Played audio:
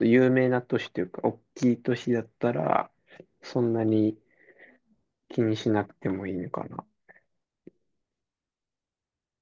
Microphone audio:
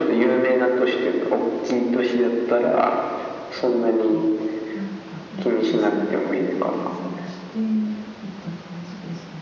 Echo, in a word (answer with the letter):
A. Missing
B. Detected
B